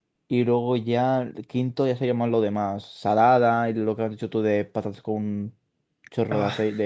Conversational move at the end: listening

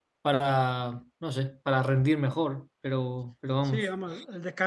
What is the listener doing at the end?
taking over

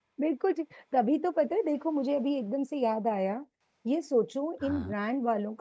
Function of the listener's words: listening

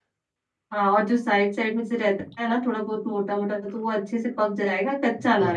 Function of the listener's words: taking over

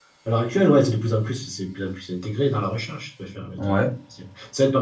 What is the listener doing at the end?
listening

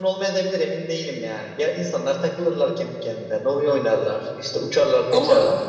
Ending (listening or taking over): listening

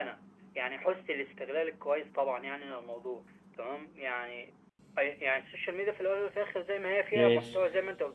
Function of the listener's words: listening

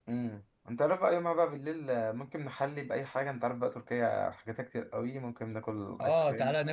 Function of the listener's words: taking over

